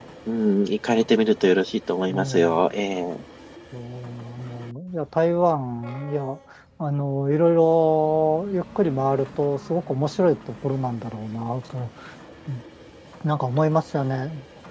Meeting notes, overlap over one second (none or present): none